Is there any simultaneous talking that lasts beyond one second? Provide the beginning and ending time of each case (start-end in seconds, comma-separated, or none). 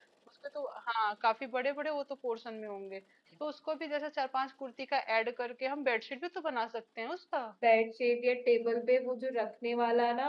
none